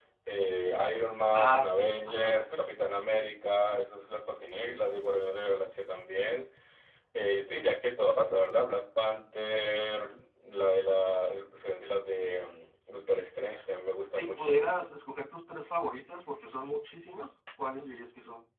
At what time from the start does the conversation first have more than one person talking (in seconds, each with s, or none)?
1.3 s